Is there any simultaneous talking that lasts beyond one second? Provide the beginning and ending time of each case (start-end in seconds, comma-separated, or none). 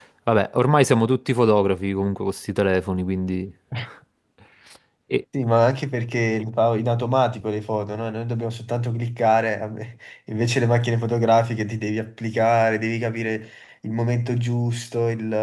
none